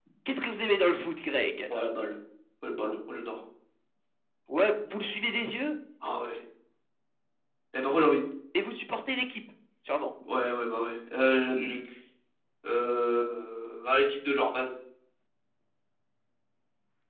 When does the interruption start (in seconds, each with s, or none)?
none